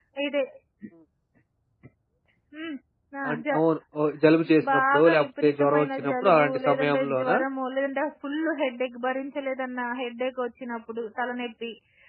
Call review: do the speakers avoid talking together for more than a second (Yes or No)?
No